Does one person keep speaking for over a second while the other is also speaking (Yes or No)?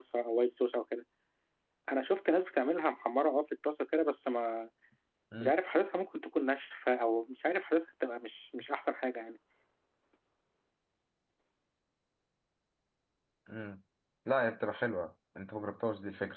No